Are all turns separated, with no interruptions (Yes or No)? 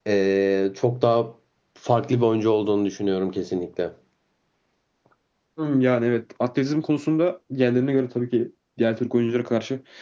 Yes